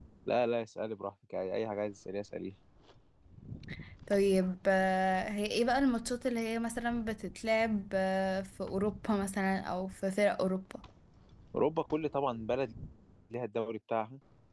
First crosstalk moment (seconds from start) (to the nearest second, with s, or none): none